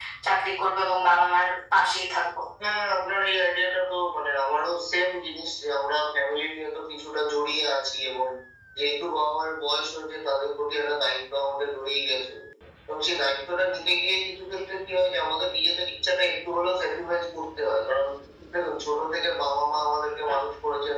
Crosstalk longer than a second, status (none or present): none